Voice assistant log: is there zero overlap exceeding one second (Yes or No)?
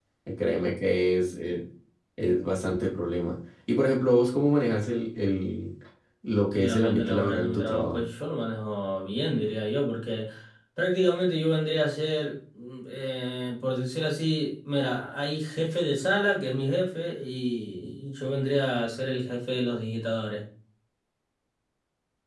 No